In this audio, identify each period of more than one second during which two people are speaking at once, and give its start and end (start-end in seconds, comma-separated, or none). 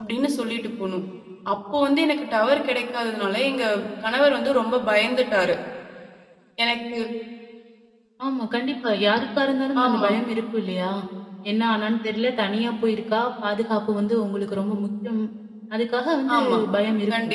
none